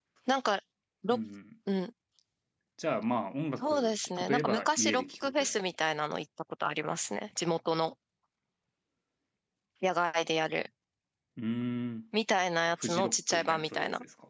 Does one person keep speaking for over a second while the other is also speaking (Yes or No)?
Yes